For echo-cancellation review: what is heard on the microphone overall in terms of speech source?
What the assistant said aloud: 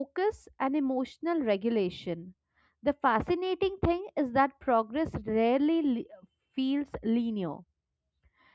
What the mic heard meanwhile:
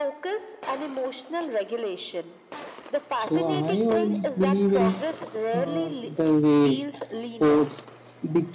both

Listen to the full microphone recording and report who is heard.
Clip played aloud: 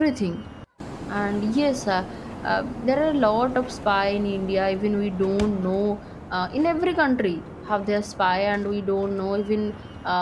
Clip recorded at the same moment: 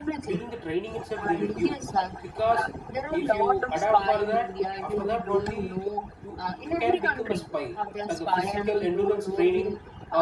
both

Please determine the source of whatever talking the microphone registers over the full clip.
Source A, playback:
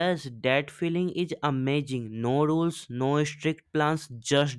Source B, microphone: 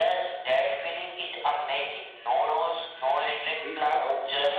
both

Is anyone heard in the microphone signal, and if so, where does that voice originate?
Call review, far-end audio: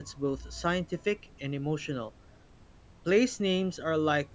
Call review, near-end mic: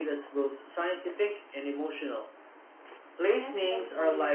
both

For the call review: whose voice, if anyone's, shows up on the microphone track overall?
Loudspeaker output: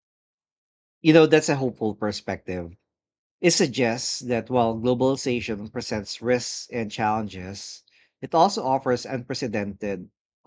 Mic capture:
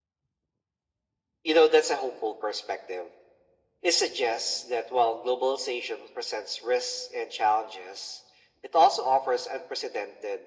echo only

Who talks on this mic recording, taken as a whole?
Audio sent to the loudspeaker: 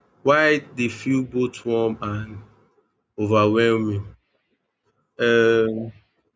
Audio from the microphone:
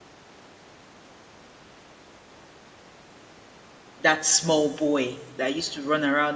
user only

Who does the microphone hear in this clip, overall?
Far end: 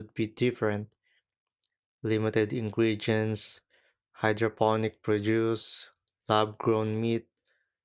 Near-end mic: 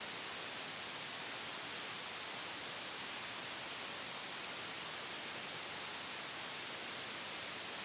neither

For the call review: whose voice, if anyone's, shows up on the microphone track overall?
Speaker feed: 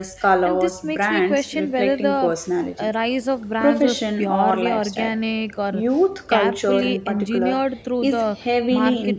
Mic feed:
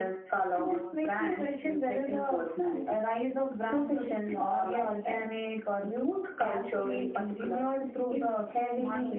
echo only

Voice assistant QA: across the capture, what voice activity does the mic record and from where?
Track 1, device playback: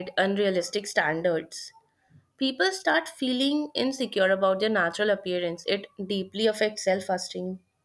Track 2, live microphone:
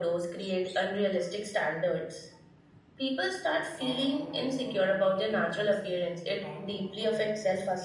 both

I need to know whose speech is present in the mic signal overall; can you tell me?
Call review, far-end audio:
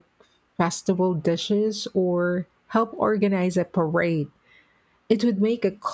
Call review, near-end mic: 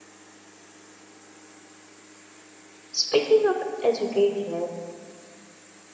user only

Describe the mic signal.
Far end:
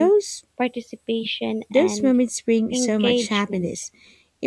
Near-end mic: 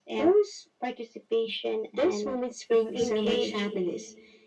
both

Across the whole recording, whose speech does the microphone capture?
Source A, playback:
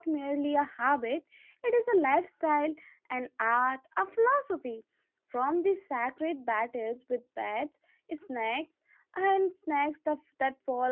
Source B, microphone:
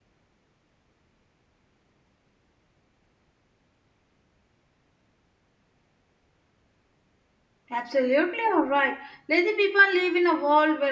user only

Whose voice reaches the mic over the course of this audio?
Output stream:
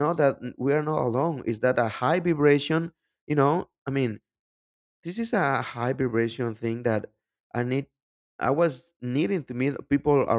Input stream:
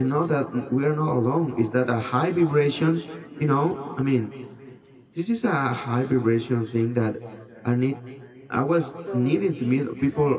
both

